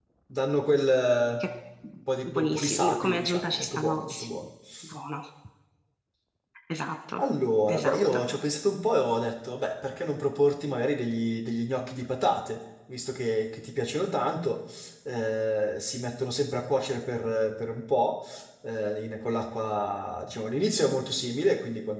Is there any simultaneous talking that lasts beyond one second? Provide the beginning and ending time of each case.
2.3-4.4

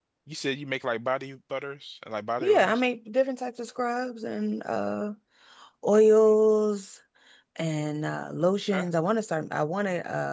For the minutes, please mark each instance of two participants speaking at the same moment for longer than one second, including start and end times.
none

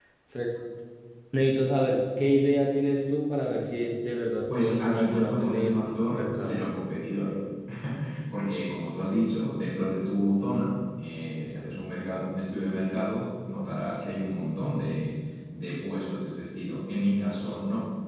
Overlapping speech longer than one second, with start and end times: 4.6-6.5

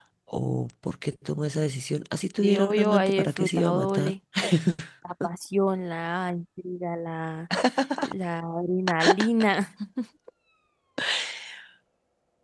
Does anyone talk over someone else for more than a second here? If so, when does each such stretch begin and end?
2.4-4.1

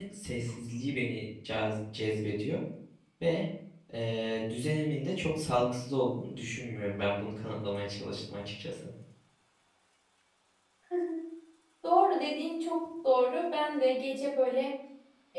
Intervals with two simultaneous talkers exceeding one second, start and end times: none

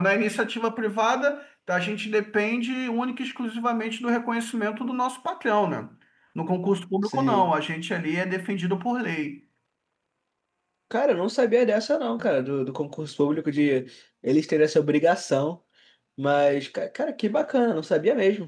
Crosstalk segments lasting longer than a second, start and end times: none

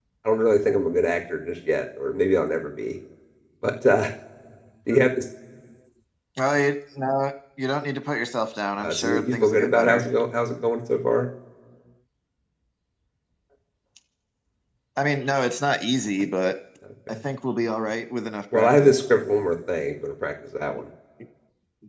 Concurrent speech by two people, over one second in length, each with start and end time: 8.8-10.1

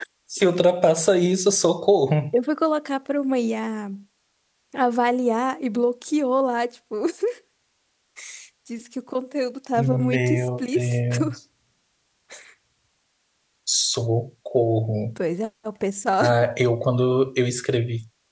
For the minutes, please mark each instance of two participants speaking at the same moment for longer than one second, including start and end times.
9.8-11.3

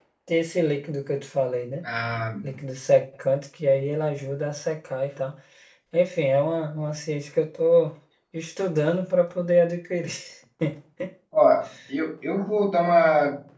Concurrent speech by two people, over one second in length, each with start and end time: none

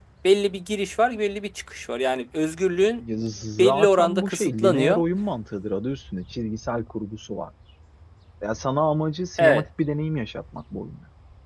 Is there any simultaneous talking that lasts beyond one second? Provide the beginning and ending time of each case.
3.6-5.0

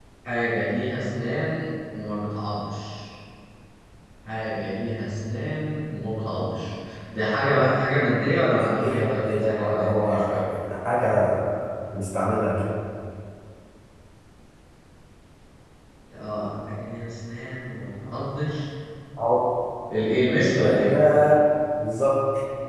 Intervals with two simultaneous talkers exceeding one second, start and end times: 8.5-10.3

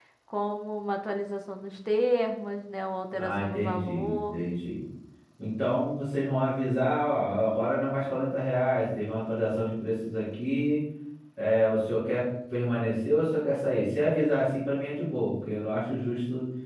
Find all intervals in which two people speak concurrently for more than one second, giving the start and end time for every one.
3.1-4.4

